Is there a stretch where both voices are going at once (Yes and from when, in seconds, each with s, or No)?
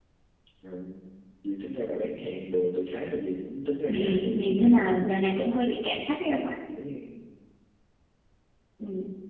Yes, from 3.9 s